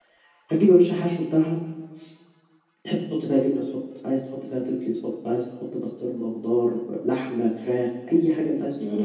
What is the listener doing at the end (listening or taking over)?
taking over